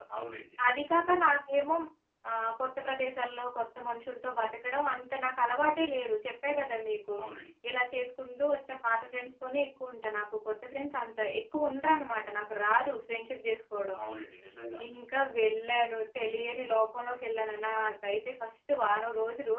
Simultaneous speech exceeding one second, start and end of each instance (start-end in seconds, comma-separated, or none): none